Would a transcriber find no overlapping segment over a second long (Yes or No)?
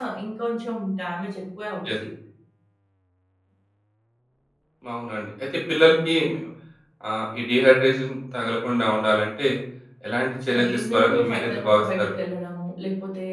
No